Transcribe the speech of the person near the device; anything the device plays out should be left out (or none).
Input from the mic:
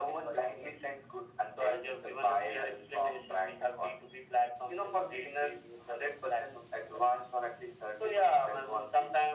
none